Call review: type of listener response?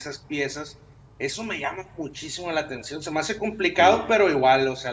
listening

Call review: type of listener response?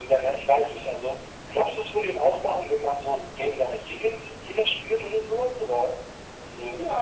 taking over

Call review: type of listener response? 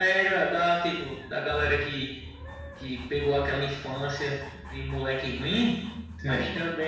listening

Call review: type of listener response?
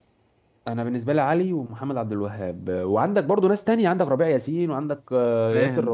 taking over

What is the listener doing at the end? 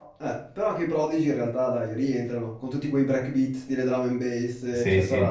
taking over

